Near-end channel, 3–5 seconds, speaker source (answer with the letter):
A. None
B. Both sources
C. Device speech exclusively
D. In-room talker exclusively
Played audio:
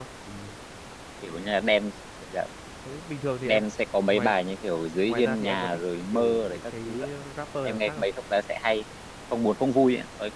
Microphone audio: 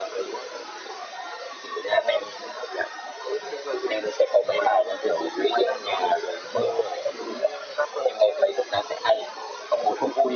C